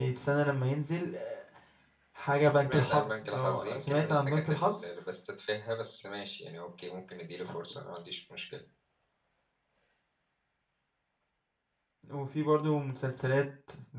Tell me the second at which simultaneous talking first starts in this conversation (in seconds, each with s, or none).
2.6 s